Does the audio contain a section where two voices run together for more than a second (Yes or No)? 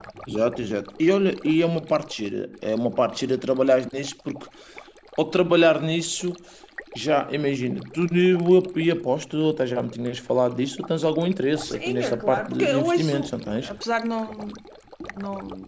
Yes